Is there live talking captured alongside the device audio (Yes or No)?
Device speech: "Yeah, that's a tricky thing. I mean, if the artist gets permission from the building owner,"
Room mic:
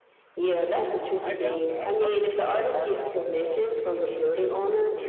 Yes